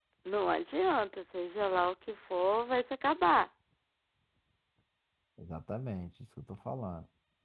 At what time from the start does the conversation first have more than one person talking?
none

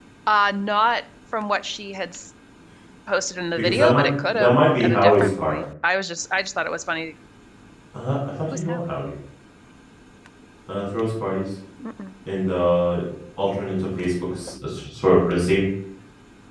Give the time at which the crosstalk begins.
3.6 s

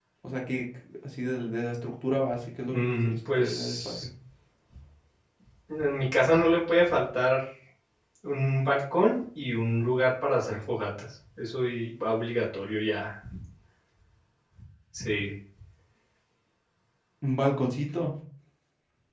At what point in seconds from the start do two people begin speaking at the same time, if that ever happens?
2.7 s

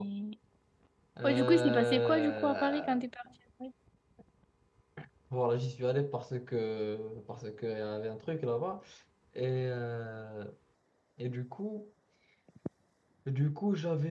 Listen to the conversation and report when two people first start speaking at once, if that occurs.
1.2 s

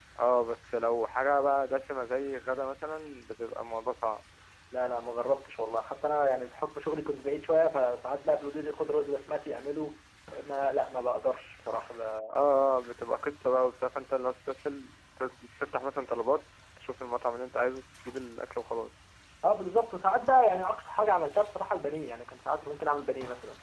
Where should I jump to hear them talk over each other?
none

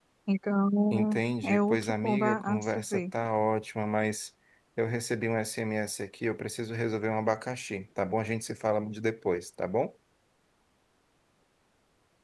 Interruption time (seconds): 0.9 s

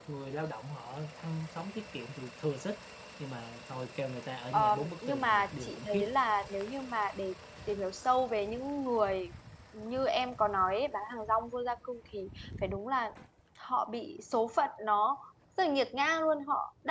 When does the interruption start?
4.5 s

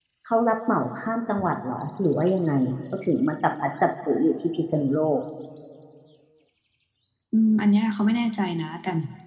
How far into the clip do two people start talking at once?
none

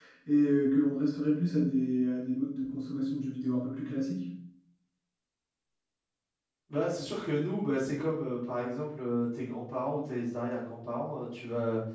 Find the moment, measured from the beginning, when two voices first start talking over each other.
none

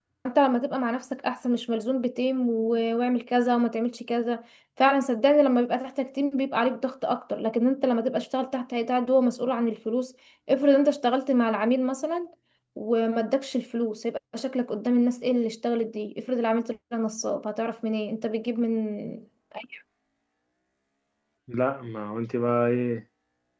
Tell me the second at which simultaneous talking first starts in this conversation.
none

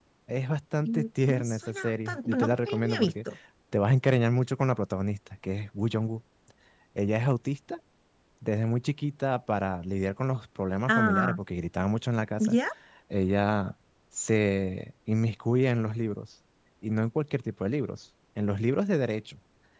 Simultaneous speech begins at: 0.8 s

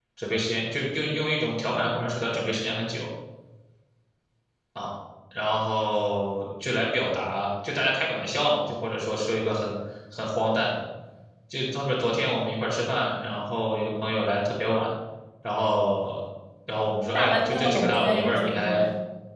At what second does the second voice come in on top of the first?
17.1 s

